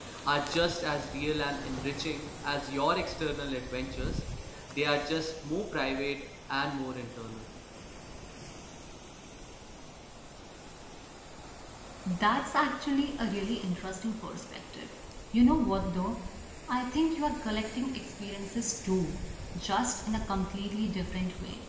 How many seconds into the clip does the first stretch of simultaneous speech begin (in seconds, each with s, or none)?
none